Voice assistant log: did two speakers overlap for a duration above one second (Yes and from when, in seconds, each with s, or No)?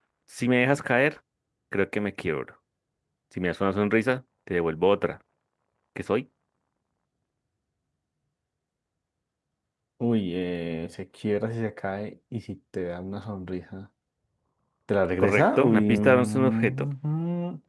Yes, from 15.2 s